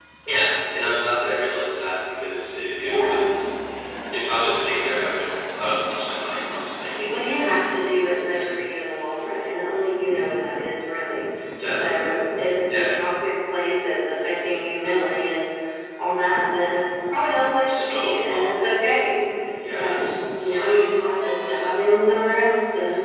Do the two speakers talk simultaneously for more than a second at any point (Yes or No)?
Yes